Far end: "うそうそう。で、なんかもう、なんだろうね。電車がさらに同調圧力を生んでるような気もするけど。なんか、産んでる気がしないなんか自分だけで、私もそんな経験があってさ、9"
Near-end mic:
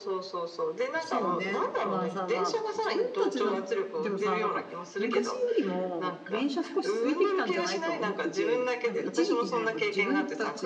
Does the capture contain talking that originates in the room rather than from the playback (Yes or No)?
Yes